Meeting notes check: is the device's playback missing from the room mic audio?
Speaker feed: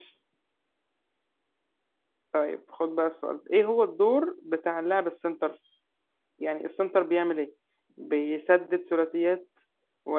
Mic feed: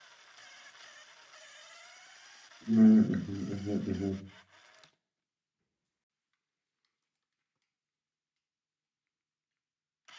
Yes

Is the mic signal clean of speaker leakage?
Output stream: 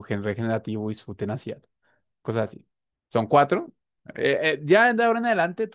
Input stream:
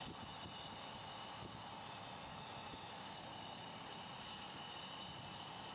Yes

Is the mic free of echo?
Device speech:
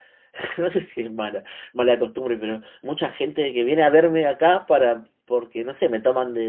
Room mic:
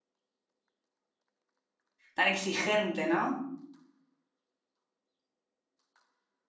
Yes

